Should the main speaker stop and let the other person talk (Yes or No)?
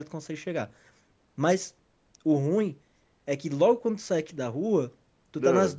No